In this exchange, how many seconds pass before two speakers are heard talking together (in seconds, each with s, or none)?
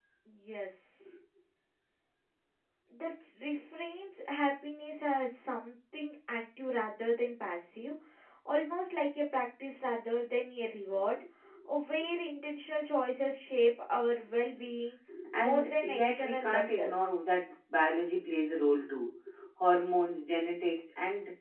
15.4 s